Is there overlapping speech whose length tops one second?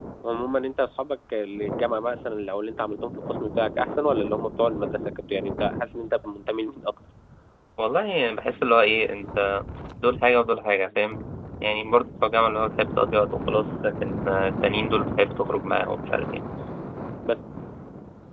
No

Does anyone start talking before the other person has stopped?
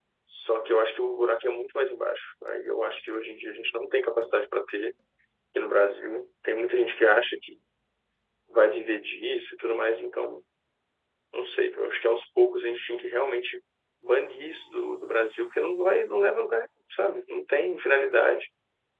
No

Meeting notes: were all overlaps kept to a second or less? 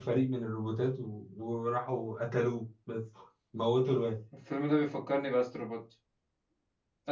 Yes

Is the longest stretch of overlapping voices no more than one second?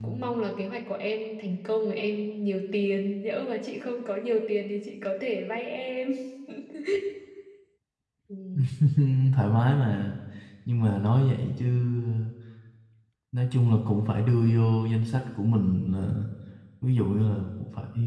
Yes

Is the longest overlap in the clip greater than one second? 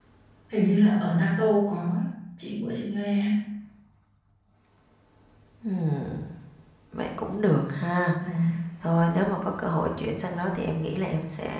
No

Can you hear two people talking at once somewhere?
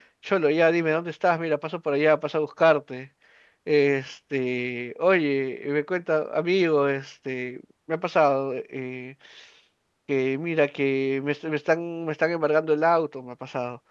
No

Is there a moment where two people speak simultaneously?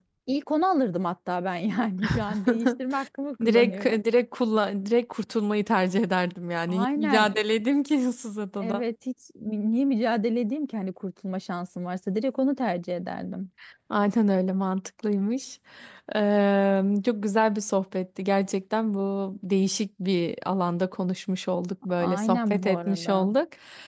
Yes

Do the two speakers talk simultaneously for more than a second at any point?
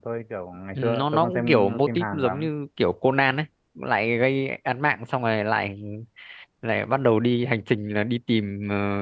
Yes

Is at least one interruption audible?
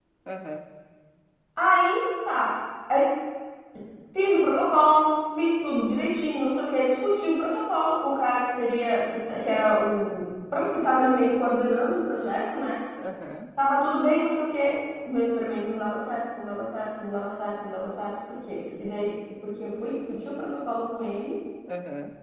No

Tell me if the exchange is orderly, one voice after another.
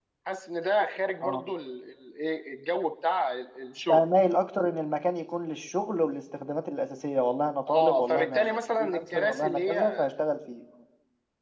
No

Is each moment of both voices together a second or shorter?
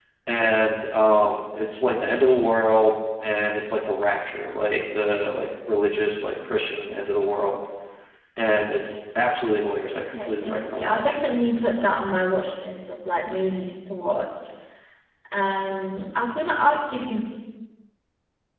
No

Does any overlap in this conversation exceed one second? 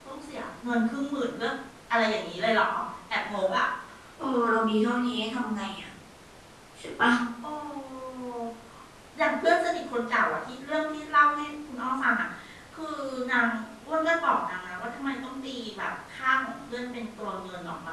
No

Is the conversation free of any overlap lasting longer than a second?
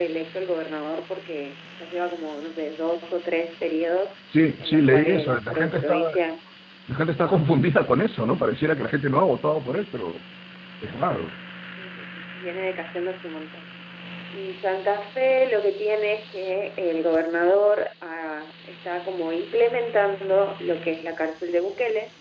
No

